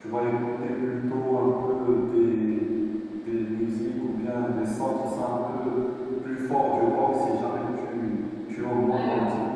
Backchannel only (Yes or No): Yes